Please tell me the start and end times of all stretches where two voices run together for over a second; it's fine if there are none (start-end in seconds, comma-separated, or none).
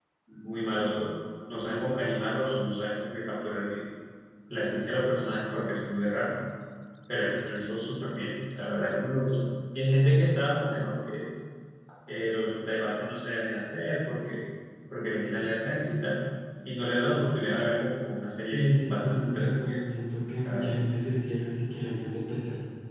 18.5-19.8